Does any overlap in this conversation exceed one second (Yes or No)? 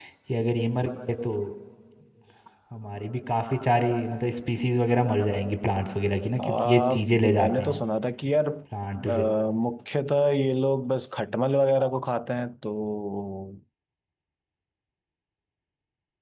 Yes